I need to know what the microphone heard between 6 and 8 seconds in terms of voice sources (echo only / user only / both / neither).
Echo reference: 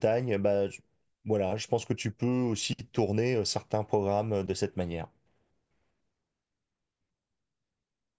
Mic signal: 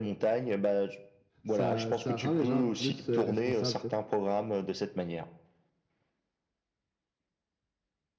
neither